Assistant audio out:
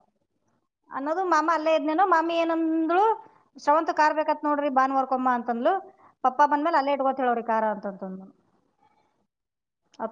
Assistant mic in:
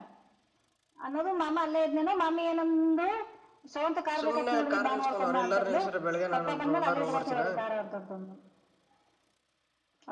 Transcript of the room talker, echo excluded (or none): ಸುಮ್ನೆ ಕಾರ್ ನಿಲ್ಸ್ಕೊಂಡ್ ಅವ್ರರು ಎಲ್ಲಾರರು ನಿಲ್ಲಿಸಿರೆ ಬೆಳಗ್ಗೆ ನಾನ ಒಂದ್ ರೌಂಡಾದ್ರು ಹೋಗಬರ್ತಿನ